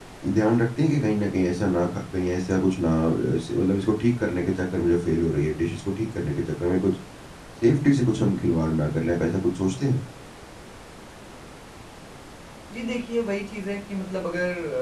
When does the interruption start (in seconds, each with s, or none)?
none